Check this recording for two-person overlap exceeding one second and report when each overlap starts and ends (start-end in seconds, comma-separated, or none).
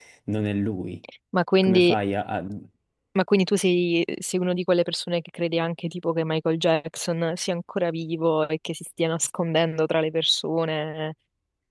none